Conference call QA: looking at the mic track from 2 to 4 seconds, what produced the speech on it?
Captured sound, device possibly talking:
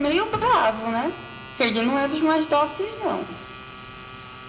echo only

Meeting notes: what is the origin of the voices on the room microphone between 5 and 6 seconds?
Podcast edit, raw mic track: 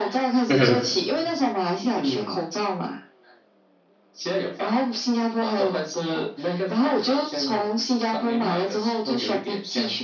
echo only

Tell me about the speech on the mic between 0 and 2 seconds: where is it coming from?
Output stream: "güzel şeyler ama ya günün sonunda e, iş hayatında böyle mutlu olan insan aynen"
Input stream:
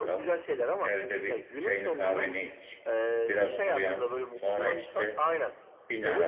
both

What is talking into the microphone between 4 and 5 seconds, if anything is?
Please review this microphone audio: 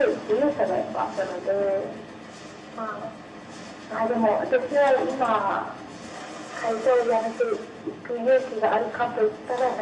echo only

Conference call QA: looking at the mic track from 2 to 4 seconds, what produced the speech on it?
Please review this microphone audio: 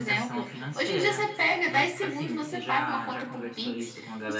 echo only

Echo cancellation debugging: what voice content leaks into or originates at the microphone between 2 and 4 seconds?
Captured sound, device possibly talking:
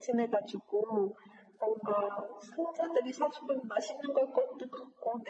echo only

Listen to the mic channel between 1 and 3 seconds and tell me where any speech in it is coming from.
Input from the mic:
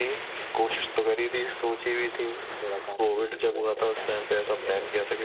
echo only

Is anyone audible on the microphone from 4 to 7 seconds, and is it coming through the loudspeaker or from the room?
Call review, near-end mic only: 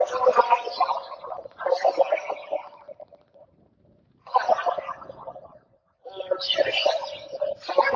echo only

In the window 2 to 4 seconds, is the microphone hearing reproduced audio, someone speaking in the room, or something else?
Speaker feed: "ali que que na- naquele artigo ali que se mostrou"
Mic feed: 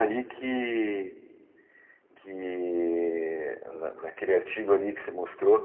echo only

